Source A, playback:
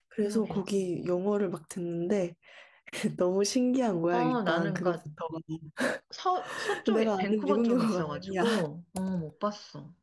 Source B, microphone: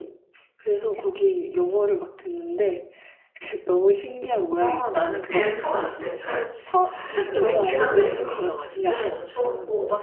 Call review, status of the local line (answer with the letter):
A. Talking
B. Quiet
A